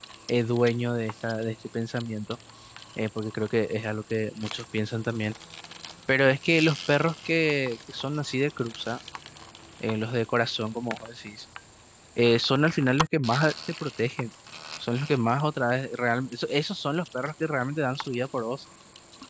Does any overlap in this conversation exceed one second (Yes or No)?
No